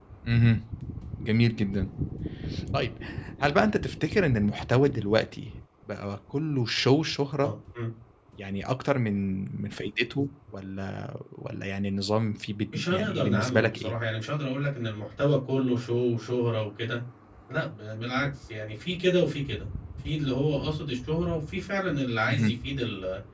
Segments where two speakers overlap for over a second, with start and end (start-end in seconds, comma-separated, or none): 12.7-13.9